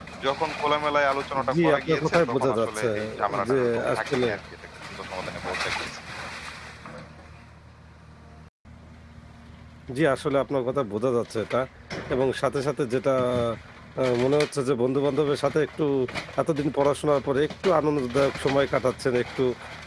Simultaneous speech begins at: 1.3 s

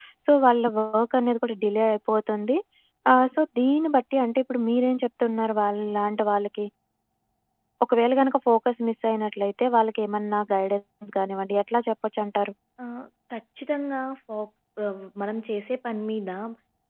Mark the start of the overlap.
none

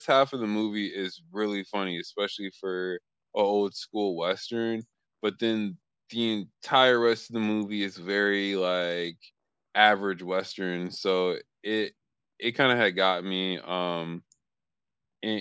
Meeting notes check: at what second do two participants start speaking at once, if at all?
none

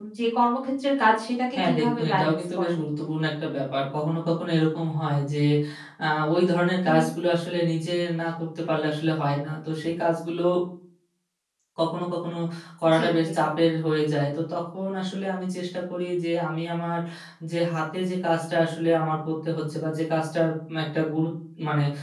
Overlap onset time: 1.5 s

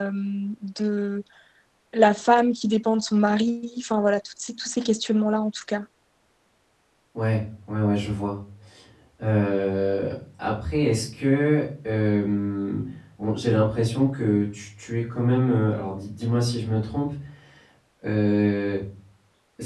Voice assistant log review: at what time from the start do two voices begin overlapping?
none

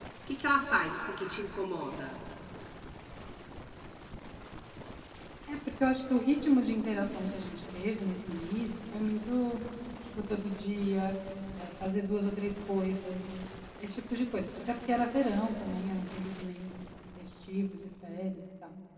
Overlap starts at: none

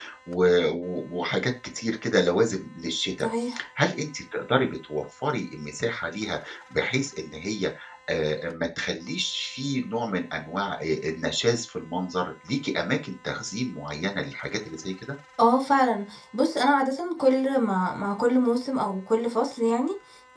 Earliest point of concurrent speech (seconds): none

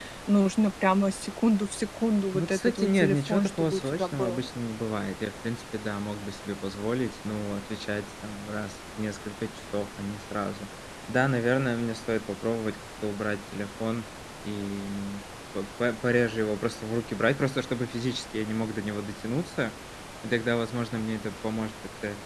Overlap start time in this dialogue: 2.3 s

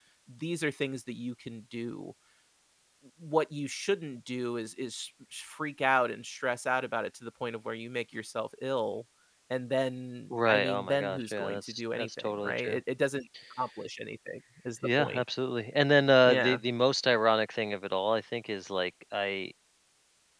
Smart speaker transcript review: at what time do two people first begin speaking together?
10.3 s

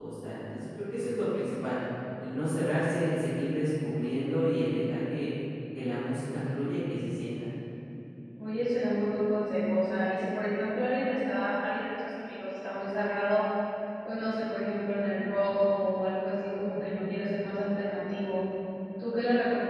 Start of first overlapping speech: none

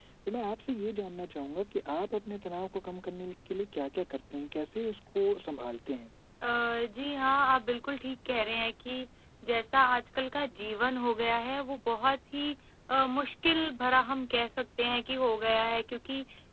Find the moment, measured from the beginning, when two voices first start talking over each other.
none

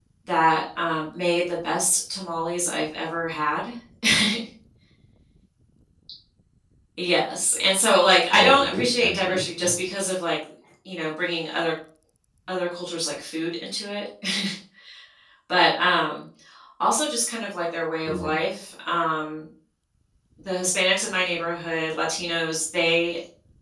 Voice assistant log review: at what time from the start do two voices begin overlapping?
8.3 s

